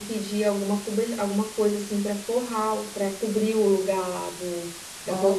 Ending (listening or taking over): taking over